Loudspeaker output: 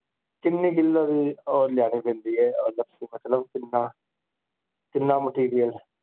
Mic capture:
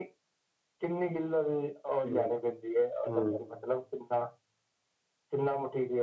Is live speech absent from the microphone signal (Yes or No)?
No